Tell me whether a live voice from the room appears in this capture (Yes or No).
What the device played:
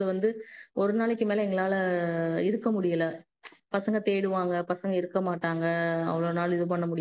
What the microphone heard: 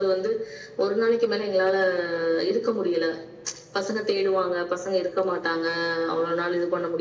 No